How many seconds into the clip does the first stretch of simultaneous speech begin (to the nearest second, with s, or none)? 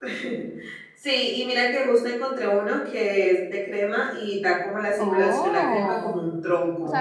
5 s